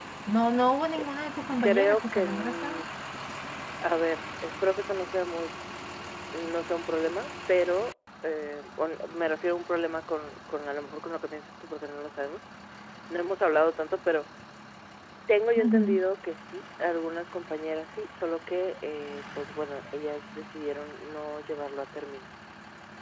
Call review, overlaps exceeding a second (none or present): present